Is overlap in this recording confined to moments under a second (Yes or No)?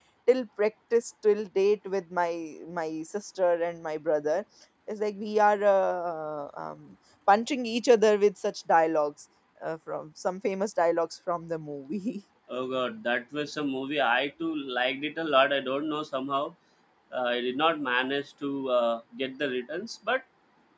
Yes